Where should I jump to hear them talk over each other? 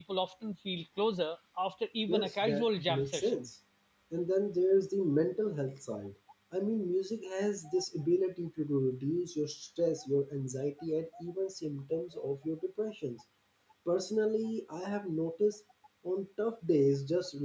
2.1 s

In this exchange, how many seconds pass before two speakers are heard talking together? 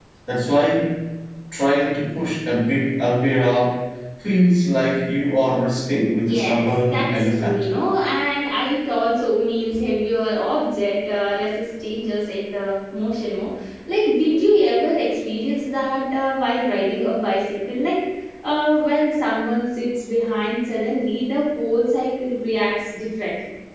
6.2 s

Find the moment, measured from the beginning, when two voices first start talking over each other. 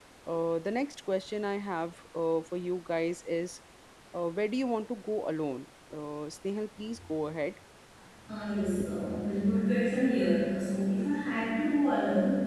none

